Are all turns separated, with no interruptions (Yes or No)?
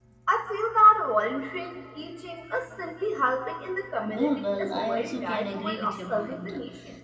No